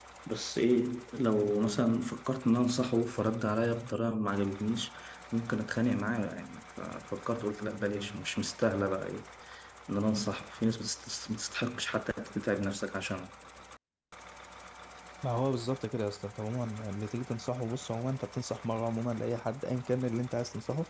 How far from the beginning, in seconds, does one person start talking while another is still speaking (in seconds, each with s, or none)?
none